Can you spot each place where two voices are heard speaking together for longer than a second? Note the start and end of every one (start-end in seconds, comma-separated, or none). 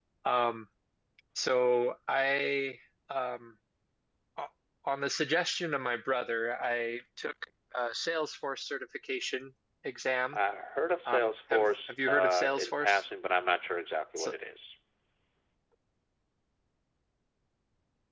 11.1-13.0